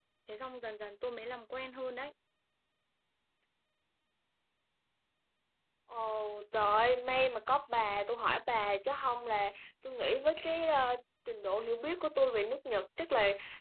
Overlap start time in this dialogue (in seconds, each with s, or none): none